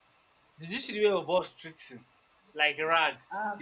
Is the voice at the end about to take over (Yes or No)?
Yes